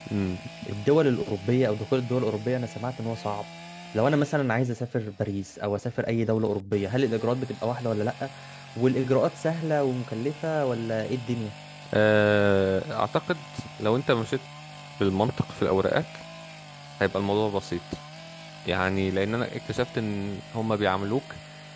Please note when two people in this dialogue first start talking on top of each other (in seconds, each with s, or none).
none